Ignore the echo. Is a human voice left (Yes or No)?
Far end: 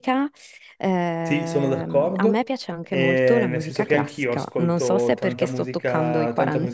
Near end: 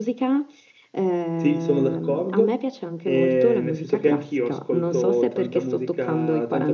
No